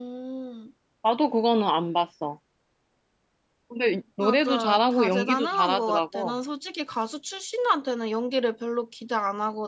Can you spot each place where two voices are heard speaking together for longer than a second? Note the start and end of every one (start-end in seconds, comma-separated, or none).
4.2-6.3